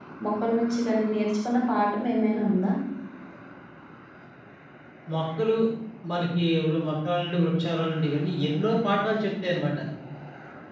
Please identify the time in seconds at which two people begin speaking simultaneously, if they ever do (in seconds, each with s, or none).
none